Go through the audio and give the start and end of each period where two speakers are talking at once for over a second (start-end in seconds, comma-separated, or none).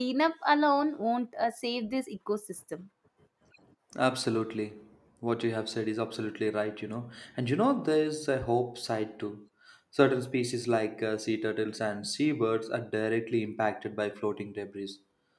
none